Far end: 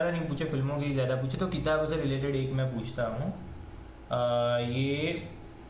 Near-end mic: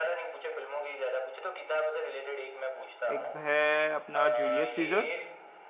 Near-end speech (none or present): present